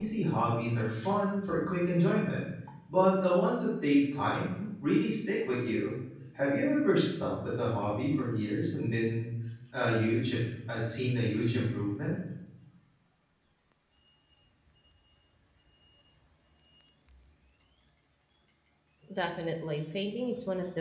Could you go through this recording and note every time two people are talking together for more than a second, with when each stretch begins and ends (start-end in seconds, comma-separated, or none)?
none